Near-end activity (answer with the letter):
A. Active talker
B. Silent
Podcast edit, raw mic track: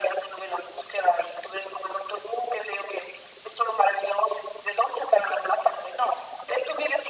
B